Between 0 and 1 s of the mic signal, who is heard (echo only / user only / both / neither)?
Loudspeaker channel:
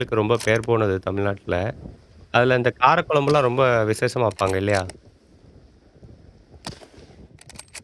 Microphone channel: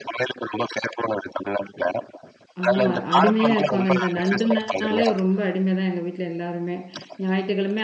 echo only